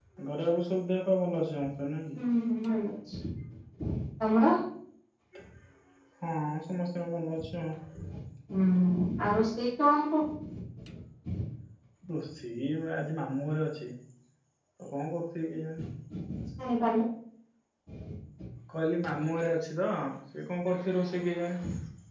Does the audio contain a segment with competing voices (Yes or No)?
No